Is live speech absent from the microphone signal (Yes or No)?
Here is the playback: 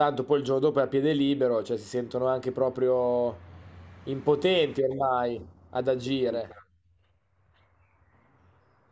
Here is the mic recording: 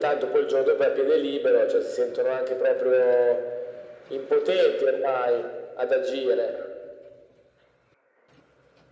Yes